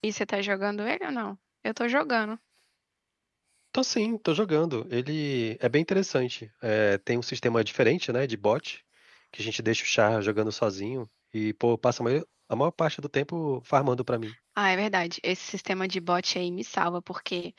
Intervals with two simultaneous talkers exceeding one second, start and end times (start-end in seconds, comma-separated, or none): none